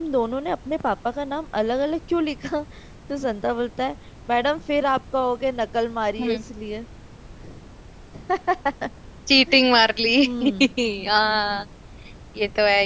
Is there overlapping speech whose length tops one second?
No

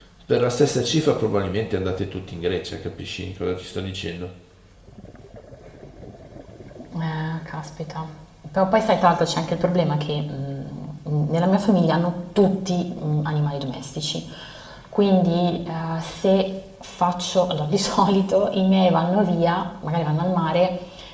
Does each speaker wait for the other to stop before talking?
Yes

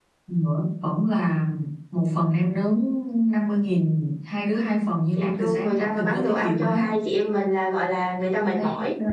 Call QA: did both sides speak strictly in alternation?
No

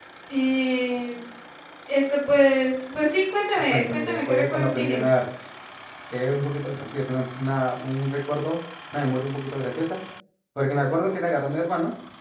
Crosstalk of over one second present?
Yes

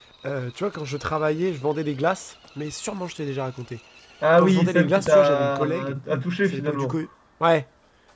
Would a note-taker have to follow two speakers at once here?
Yes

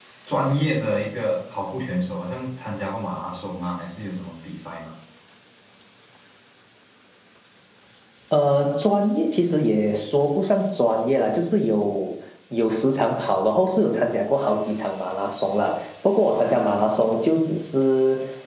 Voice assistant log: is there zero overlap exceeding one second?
Yes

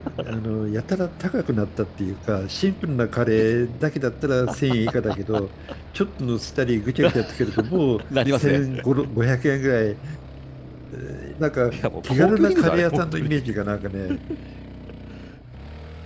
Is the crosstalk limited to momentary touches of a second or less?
No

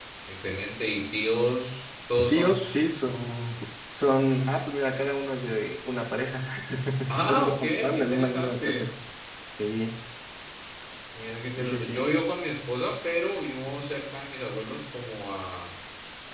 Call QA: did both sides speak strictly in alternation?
No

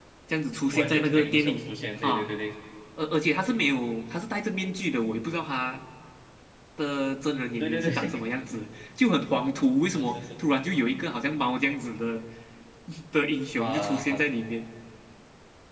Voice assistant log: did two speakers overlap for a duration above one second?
Yes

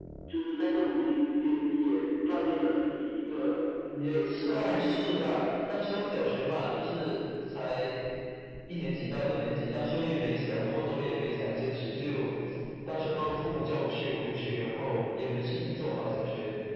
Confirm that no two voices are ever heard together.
No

